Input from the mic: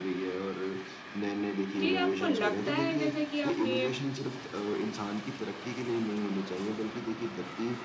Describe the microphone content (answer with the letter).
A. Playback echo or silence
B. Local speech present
B